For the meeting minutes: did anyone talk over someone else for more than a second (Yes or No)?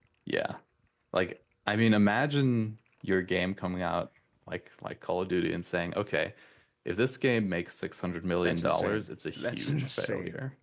Yes